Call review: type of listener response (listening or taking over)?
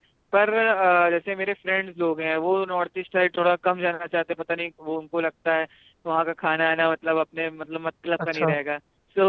listening